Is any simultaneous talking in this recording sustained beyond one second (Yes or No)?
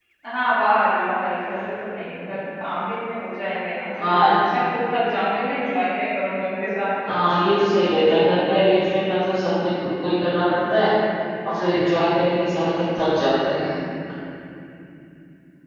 No